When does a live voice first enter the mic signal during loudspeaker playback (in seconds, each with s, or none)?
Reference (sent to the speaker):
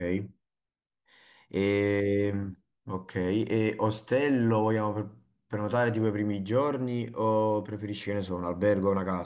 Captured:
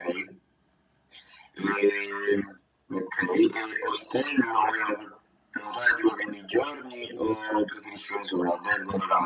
none